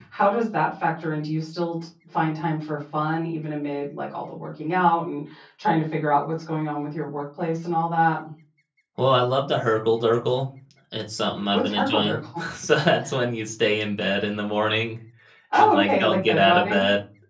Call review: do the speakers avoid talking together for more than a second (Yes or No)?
No